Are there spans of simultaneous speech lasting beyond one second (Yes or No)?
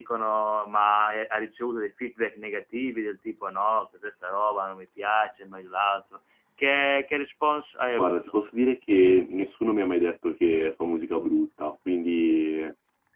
No